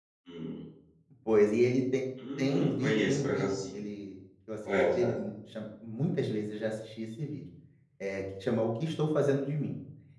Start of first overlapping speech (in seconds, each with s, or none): 2.4 s